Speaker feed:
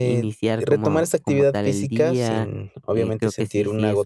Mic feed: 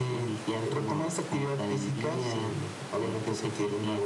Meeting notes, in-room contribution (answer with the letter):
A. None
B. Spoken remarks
A